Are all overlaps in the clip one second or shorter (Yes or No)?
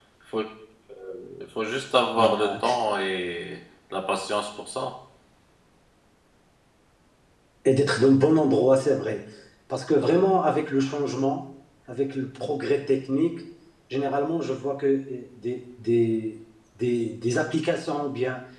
Yes